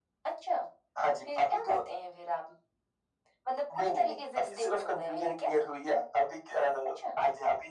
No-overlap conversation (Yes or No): No